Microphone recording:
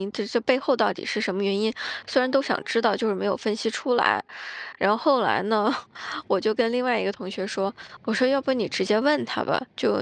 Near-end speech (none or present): present